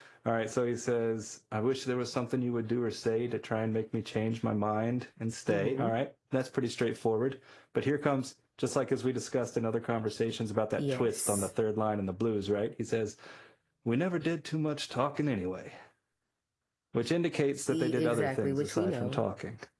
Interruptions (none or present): present